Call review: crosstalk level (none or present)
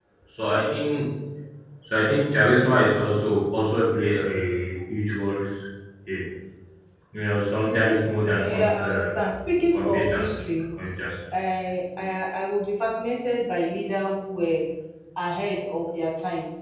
present